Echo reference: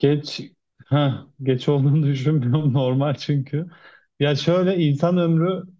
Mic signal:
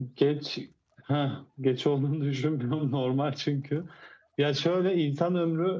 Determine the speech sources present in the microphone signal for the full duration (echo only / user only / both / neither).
echo only